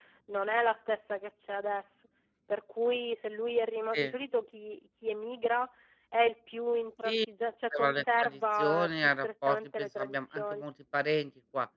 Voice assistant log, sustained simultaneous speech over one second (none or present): present